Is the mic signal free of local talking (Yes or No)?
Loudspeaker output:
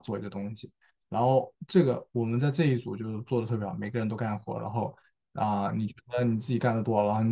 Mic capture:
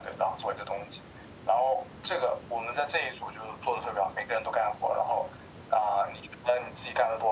Yes